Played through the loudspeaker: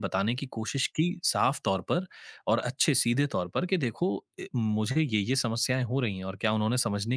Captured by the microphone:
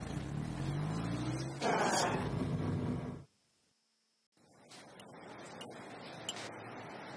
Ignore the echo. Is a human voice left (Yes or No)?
No